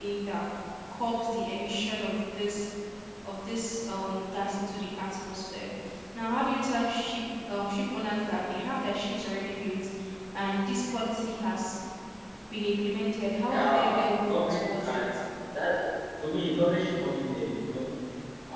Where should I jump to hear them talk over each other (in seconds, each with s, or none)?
13.4 s